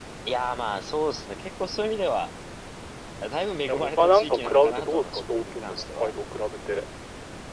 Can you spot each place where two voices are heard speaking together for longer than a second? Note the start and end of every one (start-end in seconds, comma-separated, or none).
3.7-6.1